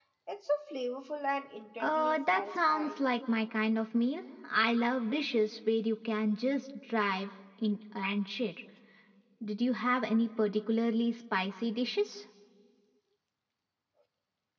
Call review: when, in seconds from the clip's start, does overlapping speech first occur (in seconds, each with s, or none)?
1.8 s